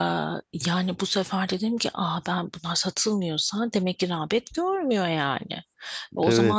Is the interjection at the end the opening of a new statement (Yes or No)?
No